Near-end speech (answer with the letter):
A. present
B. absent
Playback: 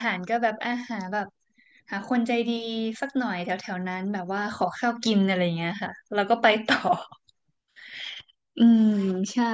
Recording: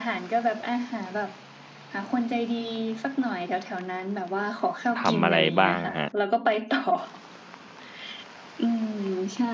A